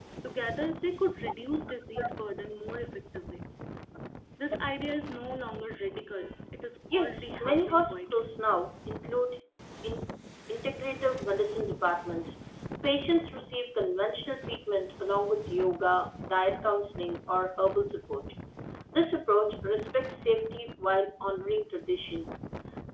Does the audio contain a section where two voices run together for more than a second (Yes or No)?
Yes